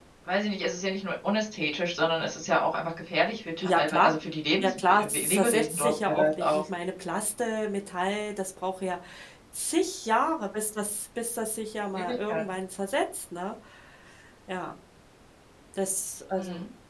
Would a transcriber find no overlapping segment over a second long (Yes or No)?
No